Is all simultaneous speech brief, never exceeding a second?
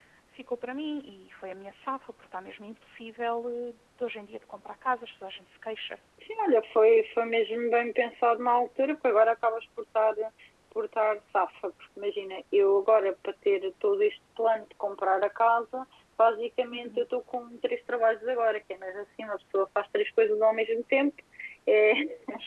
Yes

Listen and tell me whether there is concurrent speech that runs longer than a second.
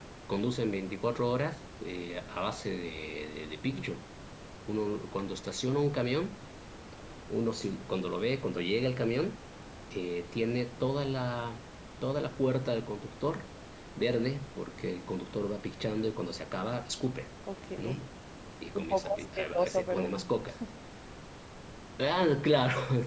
Yes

